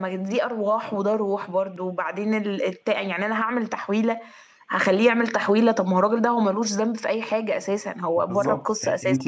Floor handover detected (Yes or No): Yes